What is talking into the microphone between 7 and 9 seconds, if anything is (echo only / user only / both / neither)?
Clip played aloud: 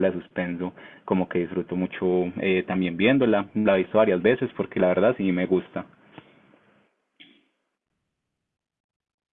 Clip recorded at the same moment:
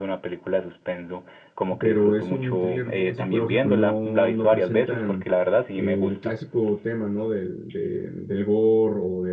user only